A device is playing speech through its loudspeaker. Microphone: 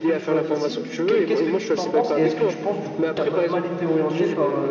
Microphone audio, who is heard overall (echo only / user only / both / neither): both